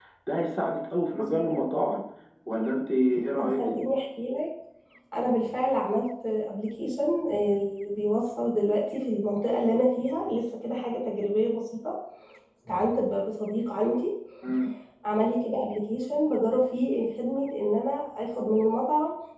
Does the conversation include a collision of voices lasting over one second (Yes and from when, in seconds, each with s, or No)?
No